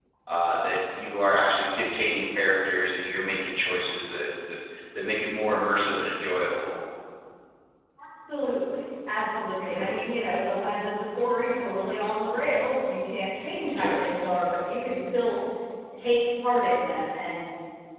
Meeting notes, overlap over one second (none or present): none